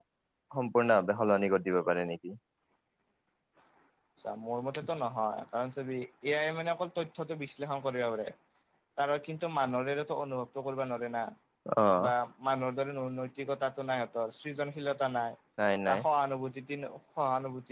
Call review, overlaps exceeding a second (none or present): none